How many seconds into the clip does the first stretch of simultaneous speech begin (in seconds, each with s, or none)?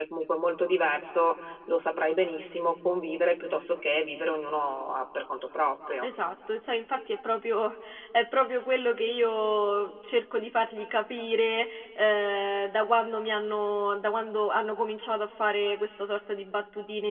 none